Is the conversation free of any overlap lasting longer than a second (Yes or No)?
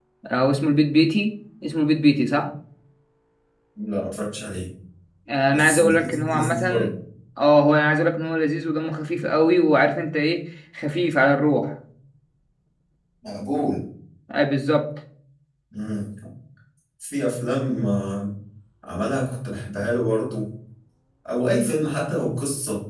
No